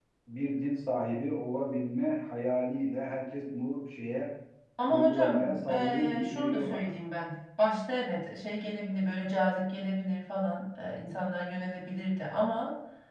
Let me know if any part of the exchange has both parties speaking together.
Yes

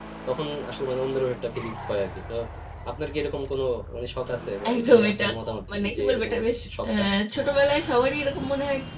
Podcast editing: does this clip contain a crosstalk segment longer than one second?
Yes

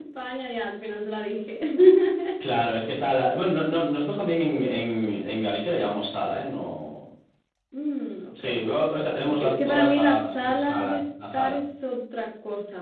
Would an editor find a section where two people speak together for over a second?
Yes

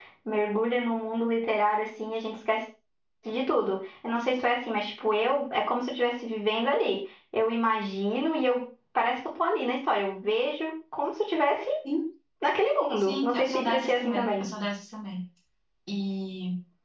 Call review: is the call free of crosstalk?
No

